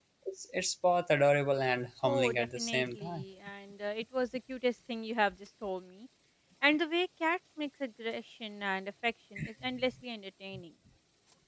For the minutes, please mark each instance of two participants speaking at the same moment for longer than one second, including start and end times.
2.0-3.2

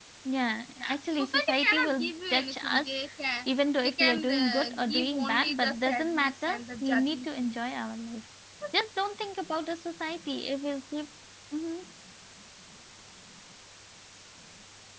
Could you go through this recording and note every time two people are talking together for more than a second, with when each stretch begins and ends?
0.8-2.9, 3.8-7.5

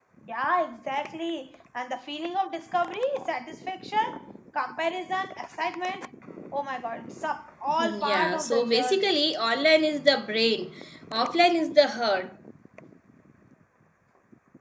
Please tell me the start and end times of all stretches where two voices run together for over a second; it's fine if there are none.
7.8-9.1

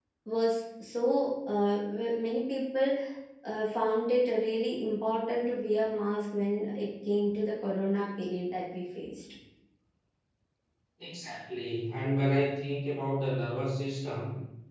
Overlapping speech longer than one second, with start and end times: none

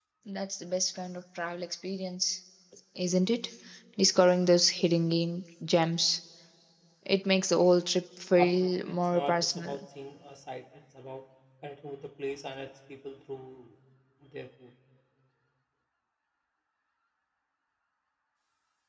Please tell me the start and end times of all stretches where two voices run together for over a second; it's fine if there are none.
8.4-9.7

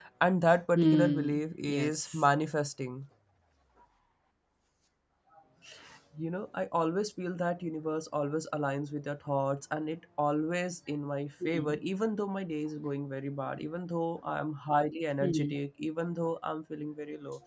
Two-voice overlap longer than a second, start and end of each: 0.8-2.3

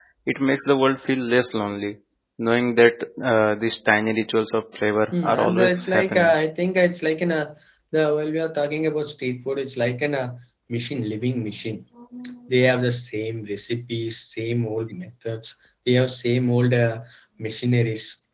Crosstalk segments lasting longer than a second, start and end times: 5.1-6.3

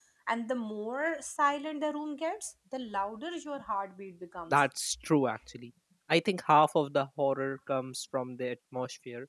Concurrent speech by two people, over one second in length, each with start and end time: none

